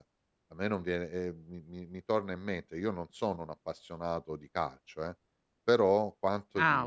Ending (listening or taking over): listening